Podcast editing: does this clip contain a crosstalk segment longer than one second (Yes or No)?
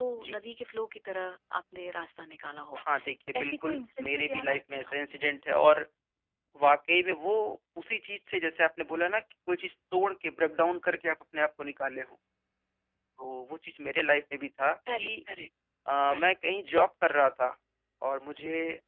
Yes